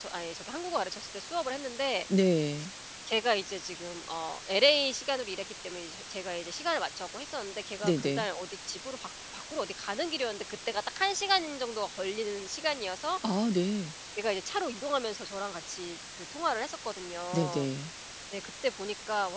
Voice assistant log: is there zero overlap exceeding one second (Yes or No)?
Yes